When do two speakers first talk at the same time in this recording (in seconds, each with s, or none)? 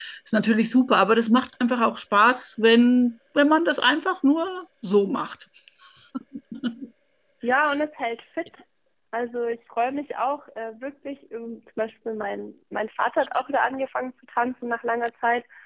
none